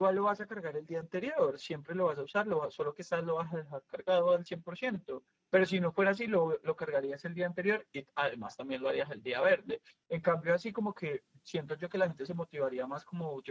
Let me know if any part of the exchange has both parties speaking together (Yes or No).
No